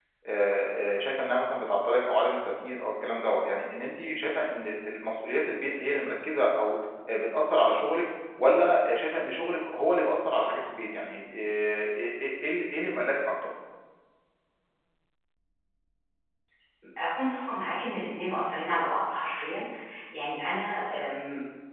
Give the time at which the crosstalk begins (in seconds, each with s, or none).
none